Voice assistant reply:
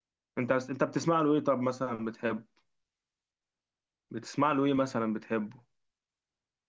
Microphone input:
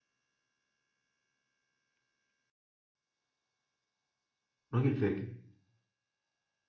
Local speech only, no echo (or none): راجل فاجر